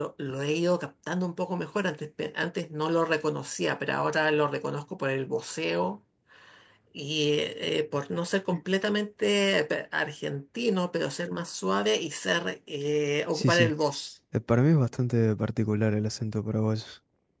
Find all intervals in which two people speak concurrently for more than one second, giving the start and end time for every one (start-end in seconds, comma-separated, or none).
none